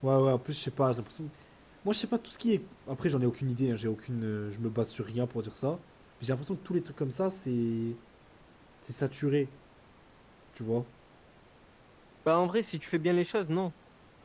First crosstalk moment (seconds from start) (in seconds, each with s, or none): none